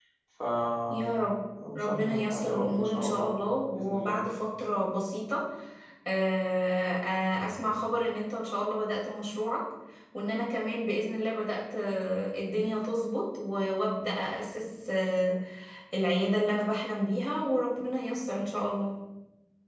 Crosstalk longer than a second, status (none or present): present